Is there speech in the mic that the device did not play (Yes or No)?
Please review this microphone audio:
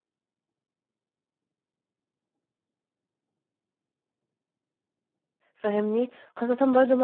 Yes